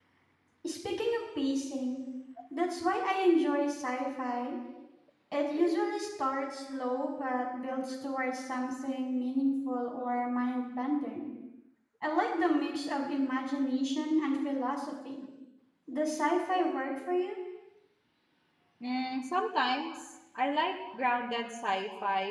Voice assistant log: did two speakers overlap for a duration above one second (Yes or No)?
No